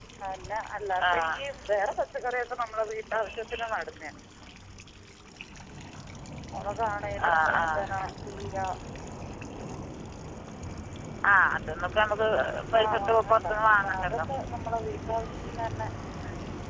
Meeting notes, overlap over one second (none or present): present